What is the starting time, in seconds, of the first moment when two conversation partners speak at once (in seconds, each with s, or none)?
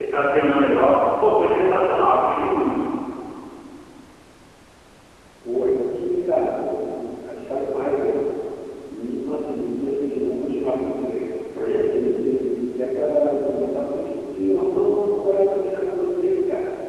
none